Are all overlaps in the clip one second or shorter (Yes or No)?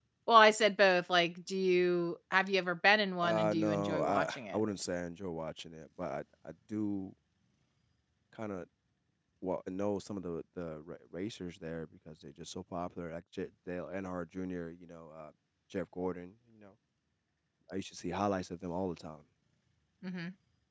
No